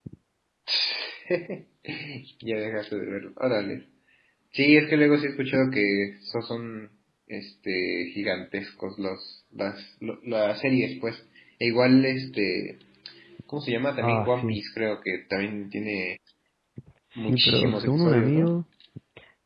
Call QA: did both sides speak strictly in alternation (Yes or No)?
No